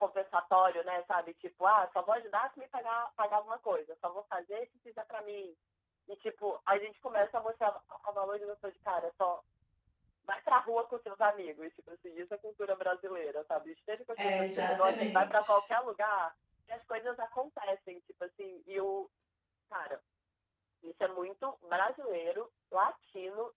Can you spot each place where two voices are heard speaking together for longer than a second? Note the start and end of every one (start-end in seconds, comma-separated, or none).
14.2-15.7